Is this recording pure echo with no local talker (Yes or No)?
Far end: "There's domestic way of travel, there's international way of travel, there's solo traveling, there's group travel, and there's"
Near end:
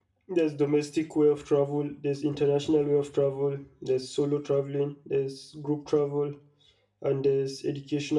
Yes